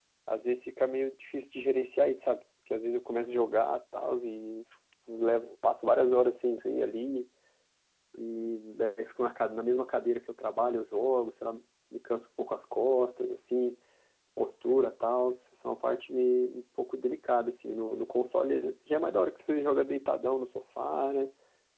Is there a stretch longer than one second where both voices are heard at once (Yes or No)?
No